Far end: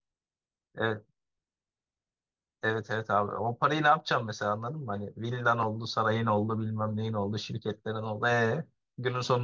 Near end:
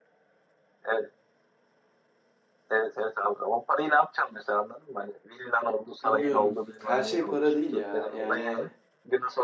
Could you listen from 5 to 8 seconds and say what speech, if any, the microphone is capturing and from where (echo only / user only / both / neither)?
both